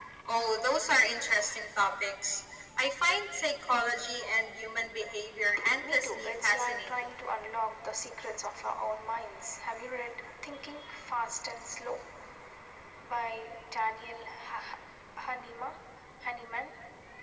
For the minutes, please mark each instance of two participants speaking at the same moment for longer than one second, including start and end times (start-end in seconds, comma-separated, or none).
5.8-7.2